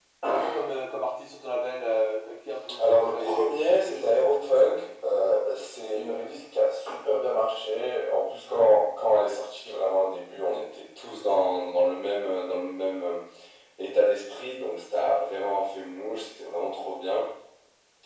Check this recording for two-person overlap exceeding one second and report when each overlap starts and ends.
2.9-4.2

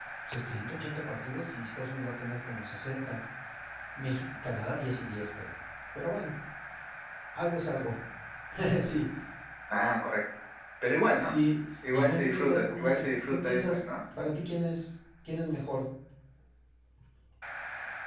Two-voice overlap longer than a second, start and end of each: 11.9-14.0

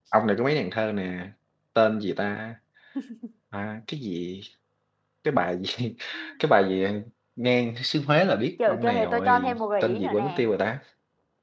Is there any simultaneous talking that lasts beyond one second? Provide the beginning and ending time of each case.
8.7-10.4

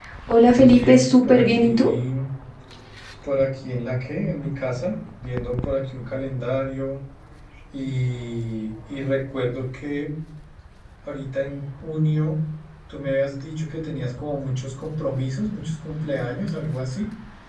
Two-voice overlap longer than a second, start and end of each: 0.5-1.9

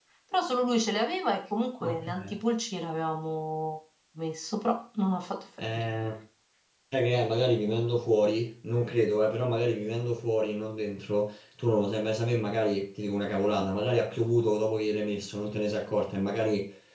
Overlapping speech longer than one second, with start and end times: none

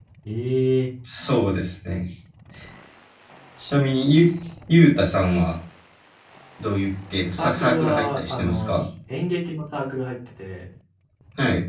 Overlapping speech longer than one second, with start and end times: 7.4-8.8

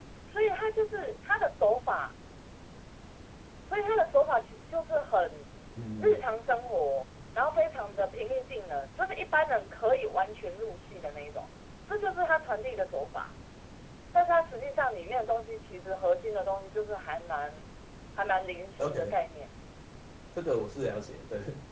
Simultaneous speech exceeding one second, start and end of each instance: none

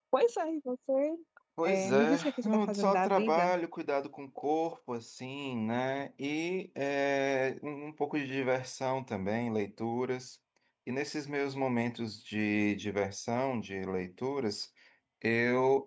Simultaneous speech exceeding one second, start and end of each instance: 1.6-3.5

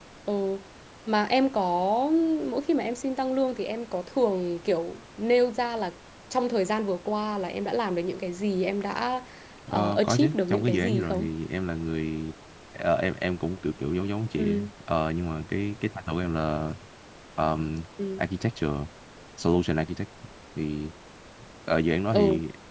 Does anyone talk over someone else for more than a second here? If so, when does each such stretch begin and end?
9.7-11.3

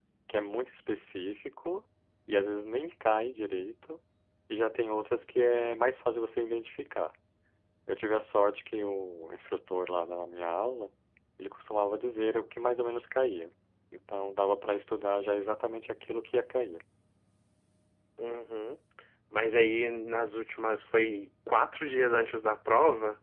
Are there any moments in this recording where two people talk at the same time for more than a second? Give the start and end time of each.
none

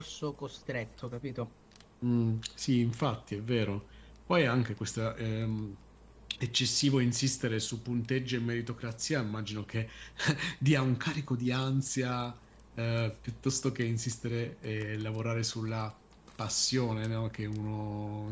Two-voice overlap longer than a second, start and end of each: none

